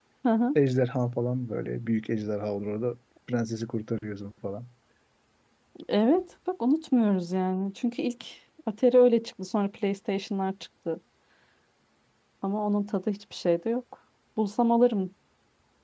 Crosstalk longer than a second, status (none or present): none